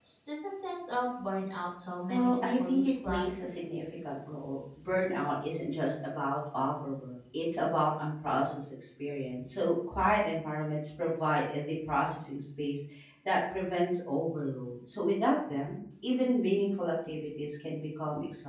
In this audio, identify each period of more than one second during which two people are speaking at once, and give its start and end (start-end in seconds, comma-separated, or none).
2.1-3.3